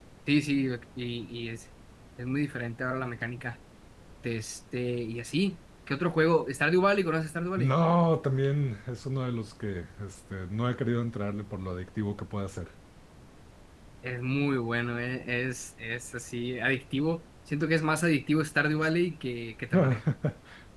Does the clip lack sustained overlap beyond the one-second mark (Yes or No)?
Yes